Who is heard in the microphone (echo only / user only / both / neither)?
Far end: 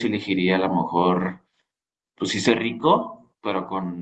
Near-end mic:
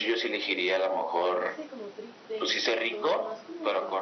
both